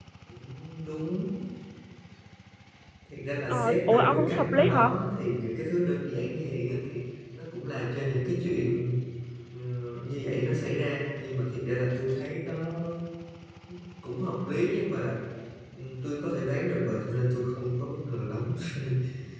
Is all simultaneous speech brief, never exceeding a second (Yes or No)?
No